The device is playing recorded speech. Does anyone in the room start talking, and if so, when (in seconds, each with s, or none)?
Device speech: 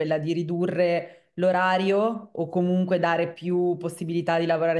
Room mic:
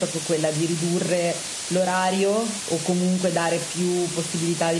none